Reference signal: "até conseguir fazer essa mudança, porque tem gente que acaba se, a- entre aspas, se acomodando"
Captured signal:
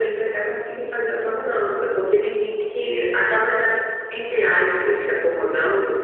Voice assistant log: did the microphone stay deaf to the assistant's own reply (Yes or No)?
No